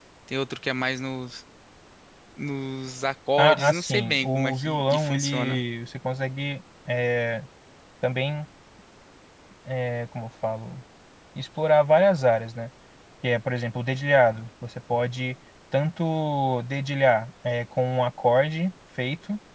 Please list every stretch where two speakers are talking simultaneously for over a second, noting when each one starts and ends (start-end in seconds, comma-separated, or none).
3.4-5.6